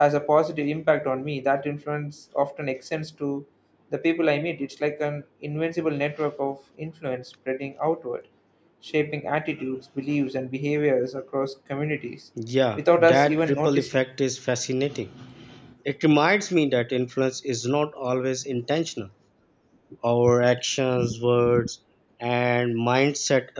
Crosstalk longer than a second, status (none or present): present